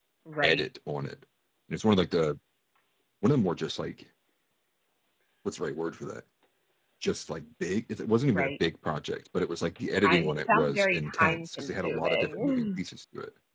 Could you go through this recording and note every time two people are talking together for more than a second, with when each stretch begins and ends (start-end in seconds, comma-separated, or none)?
10.0-12.8